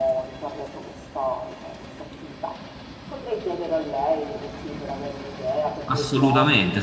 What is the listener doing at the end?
taking over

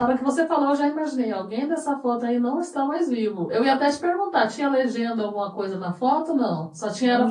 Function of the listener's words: taking over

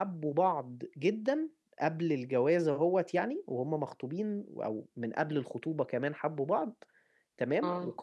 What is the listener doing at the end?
listening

